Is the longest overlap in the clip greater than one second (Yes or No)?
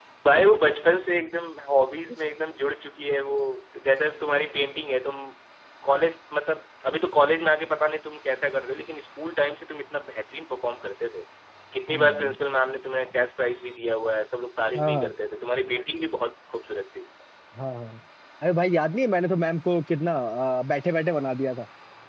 No